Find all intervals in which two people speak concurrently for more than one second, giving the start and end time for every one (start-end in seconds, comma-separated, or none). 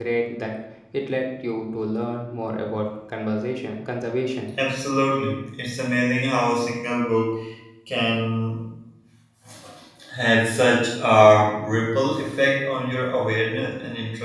none